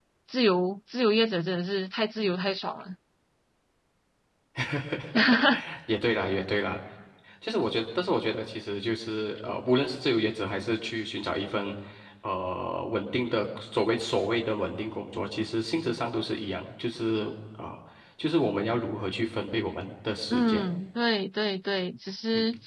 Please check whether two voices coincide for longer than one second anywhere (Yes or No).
No